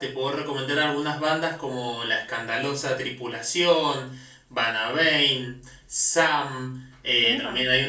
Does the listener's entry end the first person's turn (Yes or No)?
No